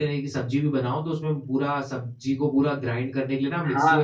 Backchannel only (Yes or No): No